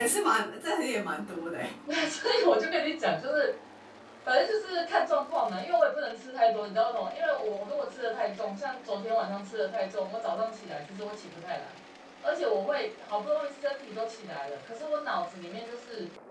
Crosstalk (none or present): none